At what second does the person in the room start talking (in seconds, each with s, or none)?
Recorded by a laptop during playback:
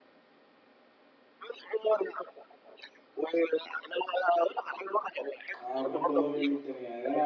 5.6 s